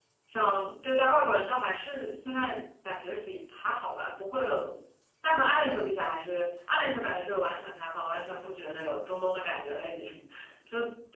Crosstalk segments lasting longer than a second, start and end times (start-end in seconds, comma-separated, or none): none